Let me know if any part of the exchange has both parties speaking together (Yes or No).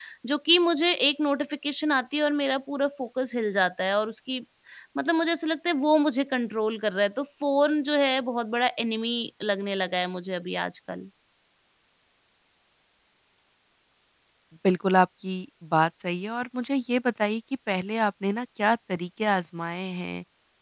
No